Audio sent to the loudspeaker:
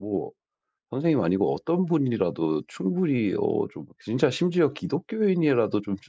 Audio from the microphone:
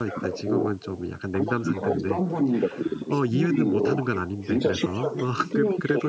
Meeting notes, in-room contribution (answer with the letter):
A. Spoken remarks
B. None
A